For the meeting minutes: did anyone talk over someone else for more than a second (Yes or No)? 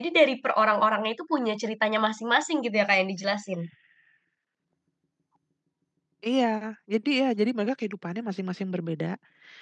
No